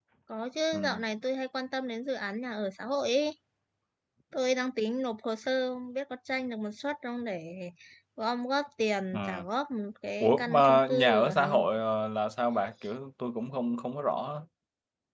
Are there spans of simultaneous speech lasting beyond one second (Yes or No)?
Yes